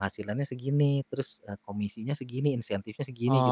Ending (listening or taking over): taking over